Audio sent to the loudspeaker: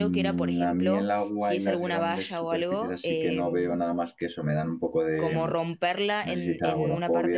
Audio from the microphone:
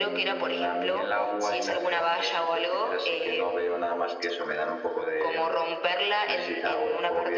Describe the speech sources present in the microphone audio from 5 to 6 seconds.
echo only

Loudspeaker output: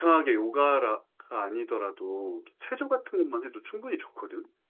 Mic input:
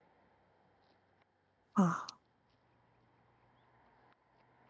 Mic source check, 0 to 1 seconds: neither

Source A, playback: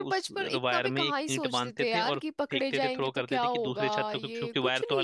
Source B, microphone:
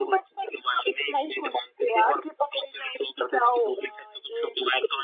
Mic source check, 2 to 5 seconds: echo only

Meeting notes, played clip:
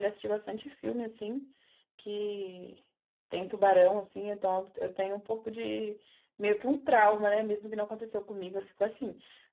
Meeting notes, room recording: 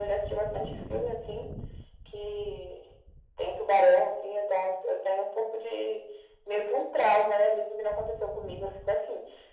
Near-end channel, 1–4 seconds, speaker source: echo only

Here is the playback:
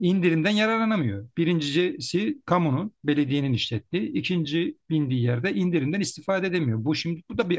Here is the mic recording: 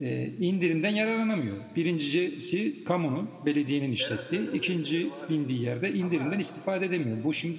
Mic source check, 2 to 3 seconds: echo only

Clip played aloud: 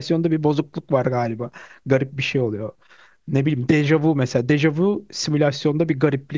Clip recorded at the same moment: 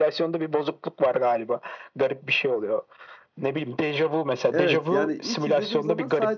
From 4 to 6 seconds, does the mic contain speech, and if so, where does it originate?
both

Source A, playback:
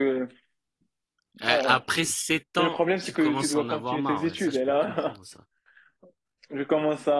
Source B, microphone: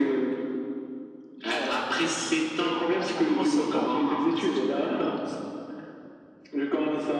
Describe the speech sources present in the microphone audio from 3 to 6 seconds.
both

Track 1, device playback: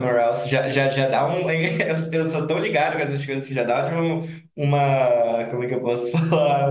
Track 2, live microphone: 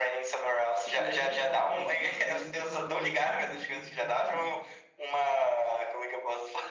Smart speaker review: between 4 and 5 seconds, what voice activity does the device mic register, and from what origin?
both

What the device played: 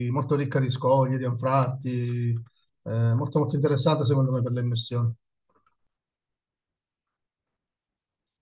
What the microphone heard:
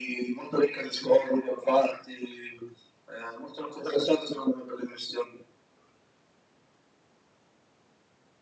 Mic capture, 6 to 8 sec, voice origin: neither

